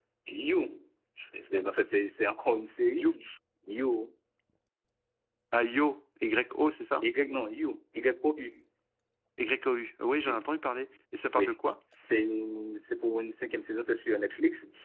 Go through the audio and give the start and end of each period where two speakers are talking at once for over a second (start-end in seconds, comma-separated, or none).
none